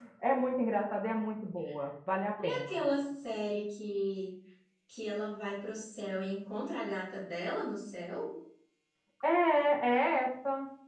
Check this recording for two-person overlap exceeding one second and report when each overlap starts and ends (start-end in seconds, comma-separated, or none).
none